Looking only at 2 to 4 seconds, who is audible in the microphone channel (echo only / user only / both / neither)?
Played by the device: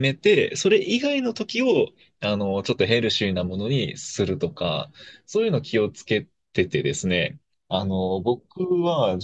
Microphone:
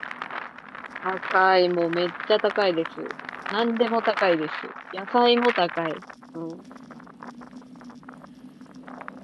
user only